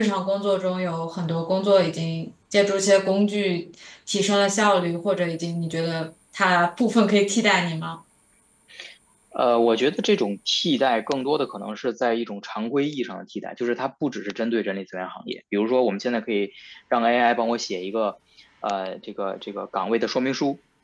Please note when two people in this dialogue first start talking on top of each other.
none

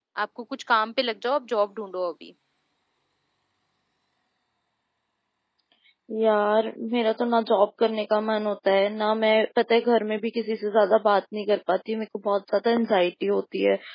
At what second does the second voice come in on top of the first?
none

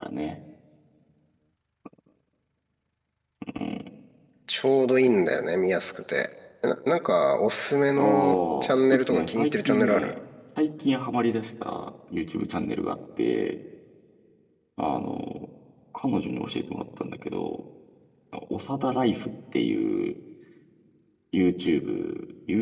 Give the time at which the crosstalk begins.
8.0 s

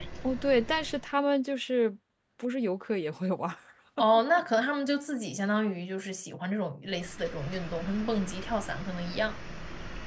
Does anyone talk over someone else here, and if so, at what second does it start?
none

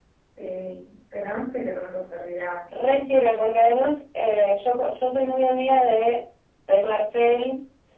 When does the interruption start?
none

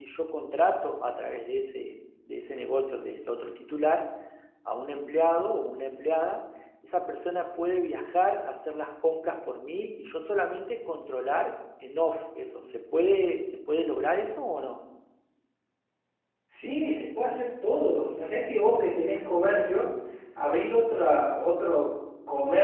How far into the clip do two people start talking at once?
none

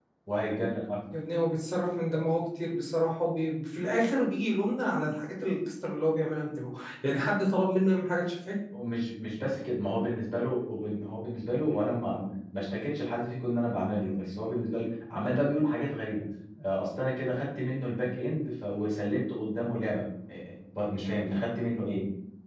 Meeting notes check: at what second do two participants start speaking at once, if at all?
none

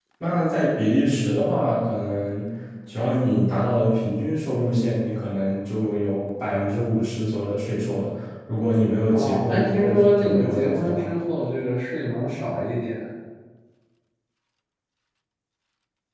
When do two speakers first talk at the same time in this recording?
9.1 s

